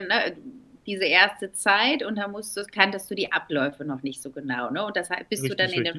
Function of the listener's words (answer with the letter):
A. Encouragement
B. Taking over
A